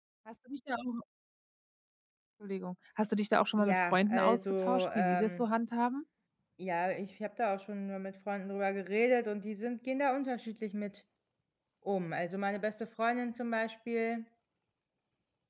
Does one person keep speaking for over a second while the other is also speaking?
Yes, from 3.6 s

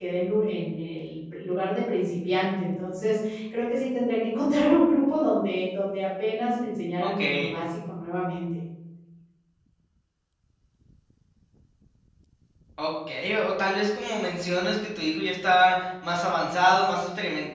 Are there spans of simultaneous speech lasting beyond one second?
No

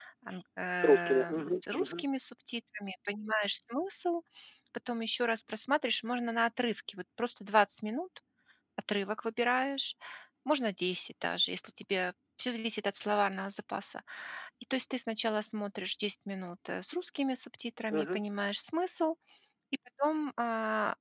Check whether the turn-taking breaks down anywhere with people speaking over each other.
Yes, from 0.8 s

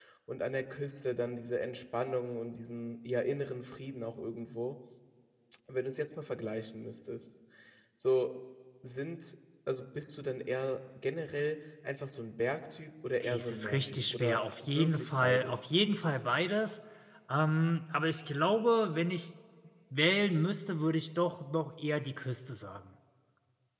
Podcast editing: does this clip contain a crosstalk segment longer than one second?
Yes, from 13.2 s

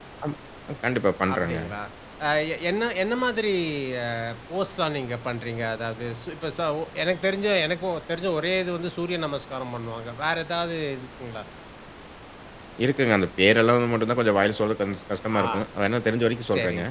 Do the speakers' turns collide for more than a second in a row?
No

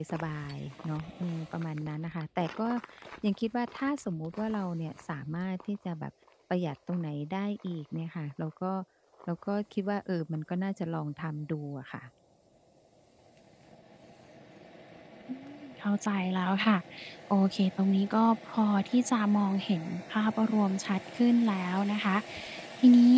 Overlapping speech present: No

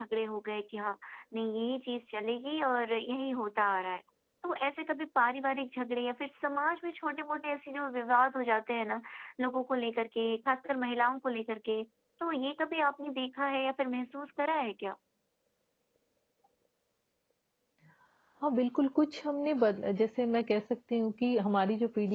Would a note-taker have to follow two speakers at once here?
No

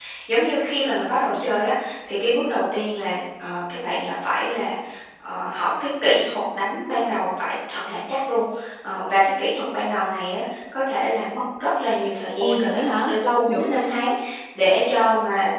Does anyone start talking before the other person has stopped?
Yes, from 12.4 s

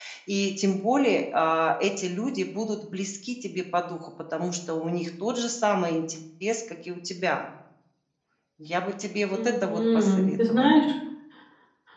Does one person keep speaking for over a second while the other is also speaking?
Yes, from 9.3 s

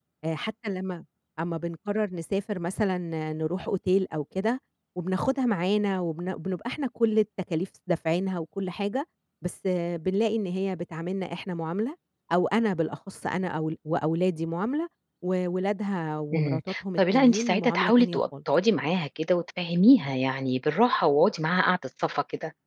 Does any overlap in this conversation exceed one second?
Yes, from 16.3 s

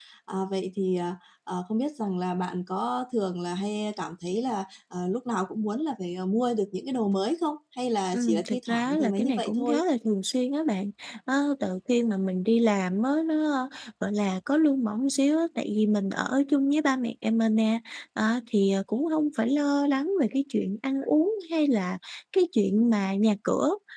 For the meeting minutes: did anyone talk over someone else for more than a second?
Yes, from 8.1 s

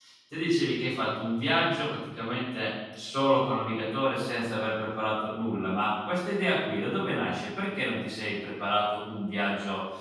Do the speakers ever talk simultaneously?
No

